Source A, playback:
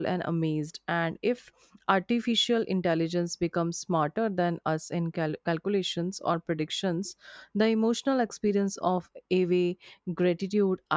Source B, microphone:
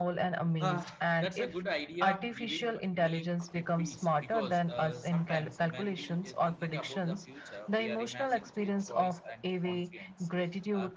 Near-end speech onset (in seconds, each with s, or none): 0.6 s